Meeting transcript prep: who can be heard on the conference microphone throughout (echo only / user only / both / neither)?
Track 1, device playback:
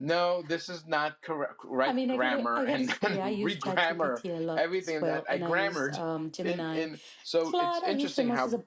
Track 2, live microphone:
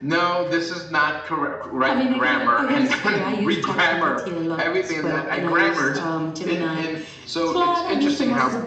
echo only